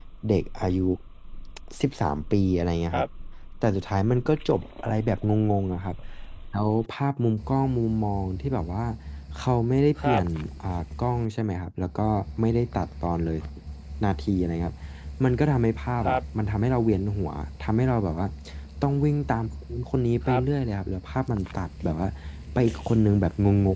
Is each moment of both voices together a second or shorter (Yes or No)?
Yes